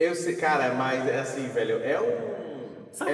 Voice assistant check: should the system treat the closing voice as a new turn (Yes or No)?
Yes